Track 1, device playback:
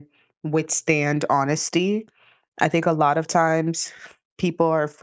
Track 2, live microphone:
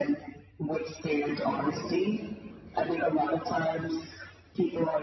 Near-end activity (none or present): present